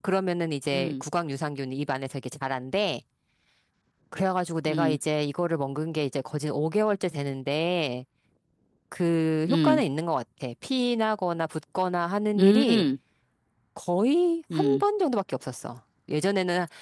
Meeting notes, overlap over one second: none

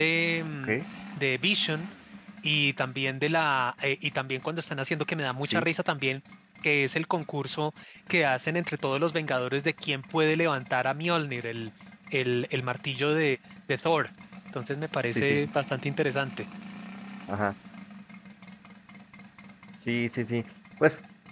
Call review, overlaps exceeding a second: none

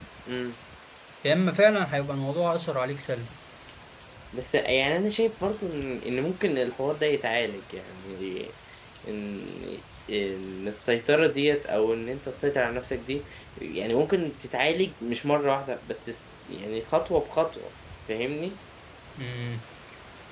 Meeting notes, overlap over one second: none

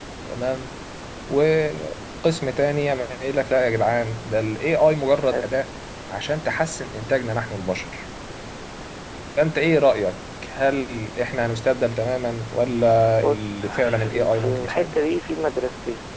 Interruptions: present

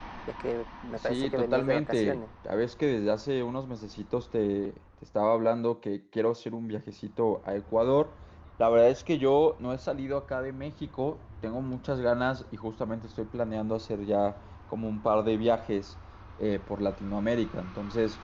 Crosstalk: present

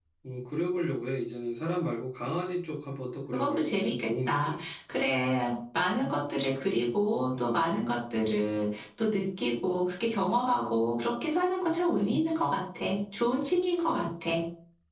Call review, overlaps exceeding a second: present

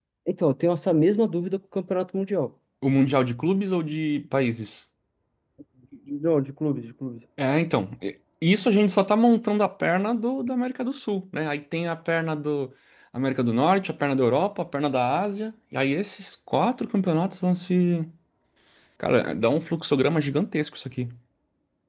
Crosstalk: none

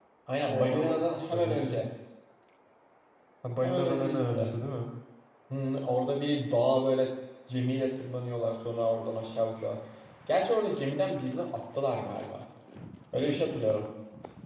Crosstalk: present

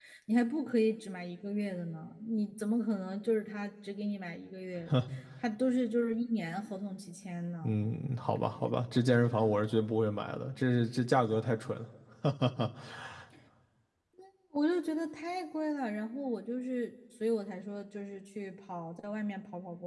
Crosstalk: none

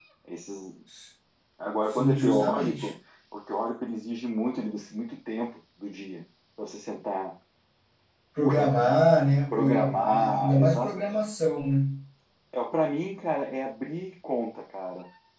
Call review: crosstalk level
present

